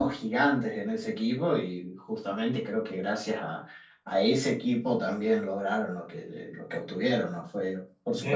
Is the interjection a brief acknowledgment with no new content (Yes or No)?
No